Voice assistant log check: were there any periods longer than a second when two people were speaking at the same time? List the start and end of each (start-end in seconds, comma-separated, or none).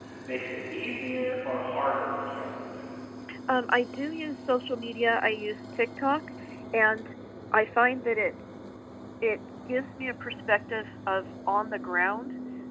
none